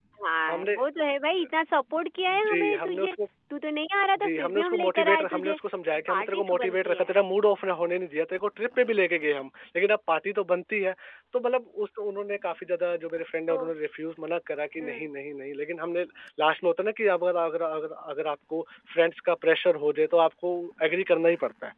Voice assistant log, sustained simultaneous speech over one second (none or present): present